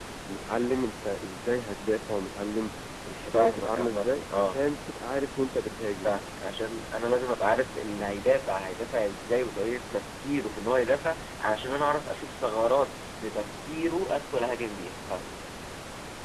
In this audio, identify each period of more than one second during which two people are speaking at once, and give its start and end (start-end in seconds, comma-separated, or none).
3.3-4.6